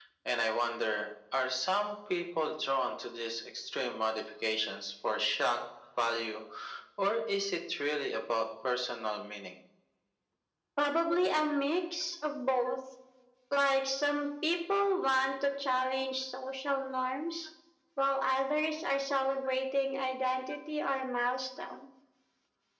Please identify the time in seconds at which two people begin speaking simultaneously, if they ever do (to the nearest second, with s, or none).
none